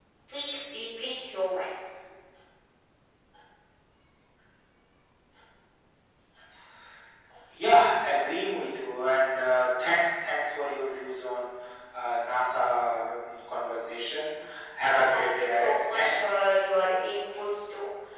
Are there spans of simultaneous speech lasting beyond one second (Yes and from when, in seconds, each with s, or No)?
Yes, from 14.8 s